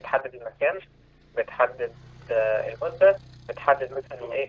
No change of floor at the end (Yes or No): Yes